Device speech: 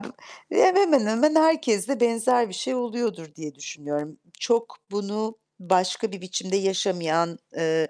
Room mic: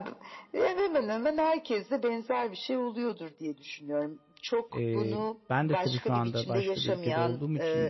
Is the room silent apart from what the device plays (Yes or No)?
No